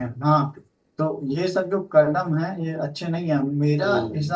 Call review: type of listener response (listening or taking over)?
listening